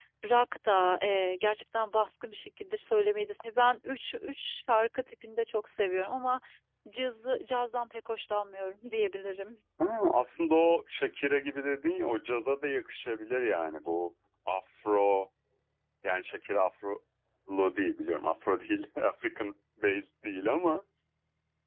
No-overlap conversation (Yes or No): Yes